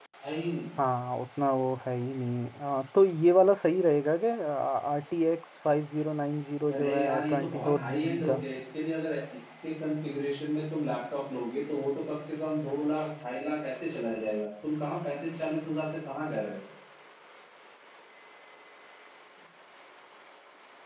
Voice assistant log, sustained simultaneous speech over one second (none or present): present